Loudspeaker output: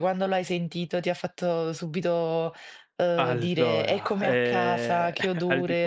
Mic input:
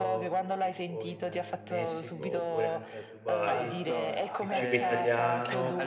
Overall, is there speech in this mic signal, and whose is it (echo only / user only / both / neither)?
both